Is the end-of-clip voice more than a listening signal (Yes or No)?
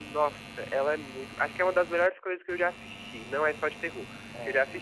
No